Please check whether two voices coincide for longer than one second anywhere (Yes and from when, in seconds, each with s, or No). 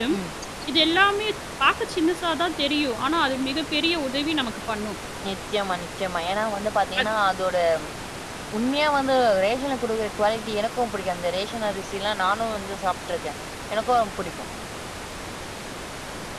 No